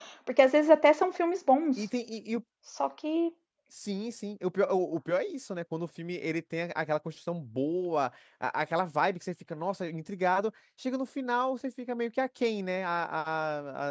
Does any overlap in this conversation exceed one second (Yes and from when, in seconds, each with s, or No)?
No